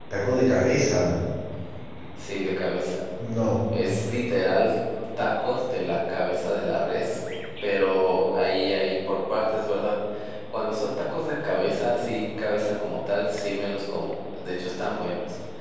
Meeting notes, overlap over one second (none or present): none